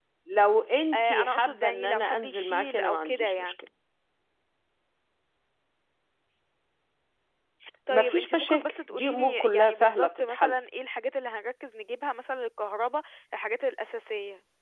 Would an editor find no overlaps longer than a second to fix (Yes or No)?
No